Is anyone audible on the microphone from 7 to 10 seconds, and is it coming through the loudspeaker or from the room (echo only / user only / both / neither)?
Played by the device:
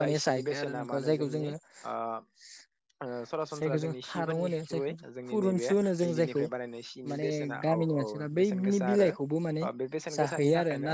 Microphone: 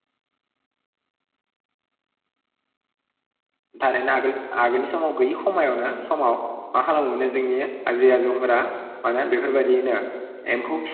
user only